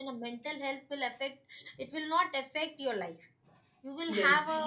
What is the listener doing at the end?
taking over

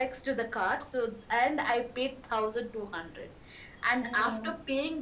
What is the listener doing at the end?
listening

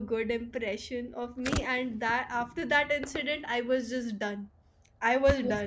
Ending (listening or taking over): taking over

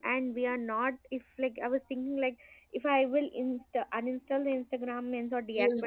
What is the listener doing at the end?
listening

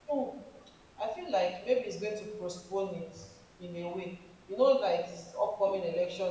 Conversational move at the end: listening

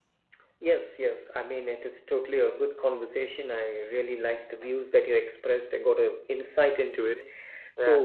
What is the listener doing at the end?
listening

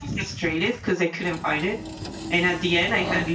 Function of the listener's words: listening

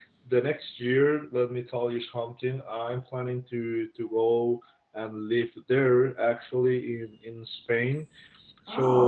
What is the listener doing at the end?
listening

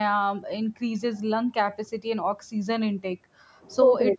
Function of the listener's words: listening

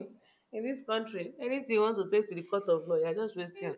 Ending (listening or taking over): taking over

